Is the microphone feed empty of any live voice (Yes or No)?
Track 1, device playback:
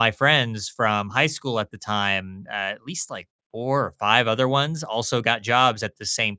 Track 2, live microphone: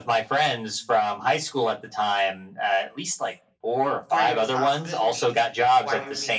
No